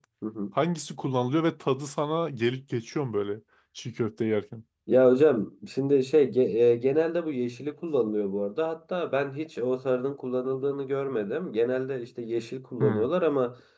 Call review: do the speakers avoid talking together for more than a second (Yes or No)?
Yes